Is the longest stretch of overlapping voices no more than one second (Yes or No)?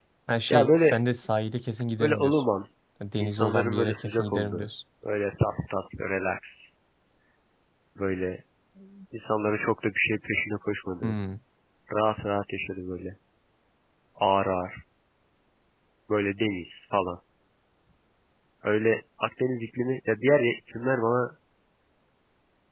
No